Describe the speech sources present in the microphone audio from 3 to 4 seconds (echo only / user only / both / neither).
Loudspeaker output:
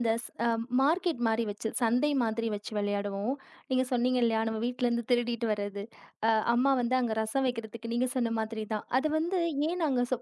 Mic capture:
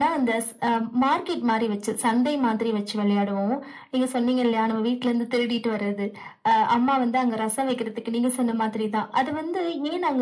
echo only